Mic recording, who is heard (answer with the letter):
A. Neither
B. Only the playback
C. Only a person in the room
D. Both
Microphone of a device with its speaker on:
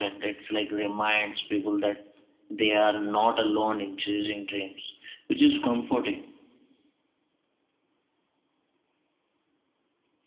B